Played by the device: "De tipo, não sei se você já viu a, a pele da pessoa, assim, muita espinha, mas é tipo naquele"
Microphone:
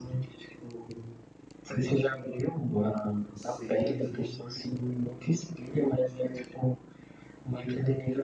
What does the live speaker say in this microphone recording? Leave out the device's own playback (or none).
sim, sim.